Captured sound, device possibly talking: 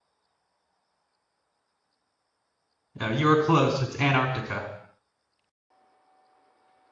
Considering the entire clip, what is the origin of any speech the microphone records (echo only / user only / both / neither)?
user only